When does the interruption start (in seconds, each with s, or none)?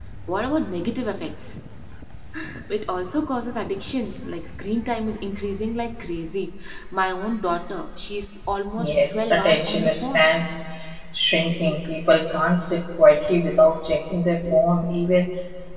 8.8 s